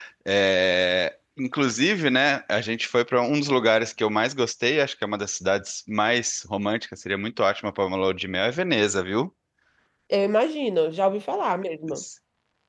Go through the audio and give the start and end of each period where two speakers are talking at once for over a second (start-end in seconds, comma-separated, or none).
none